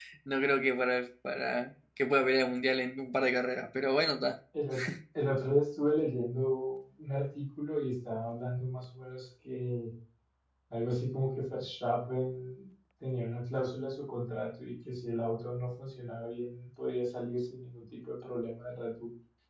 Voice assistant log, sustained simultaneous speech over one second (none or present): none